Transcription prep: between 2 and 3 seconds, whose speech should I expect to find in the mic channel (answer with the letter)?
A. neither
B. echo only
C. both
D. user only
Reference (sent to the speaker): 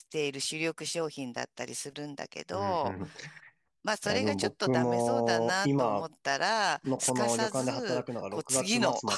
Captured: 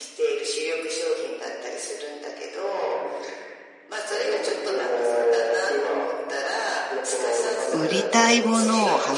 B